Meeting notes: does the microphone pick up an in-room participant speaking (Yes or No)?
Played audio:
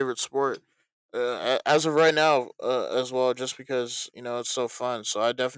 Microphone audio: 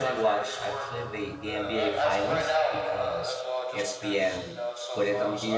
Yes